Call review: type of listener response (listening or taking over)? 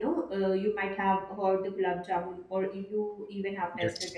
listening